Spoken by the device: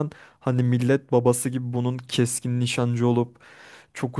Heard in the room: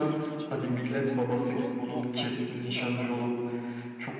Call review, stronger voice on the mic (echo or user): echo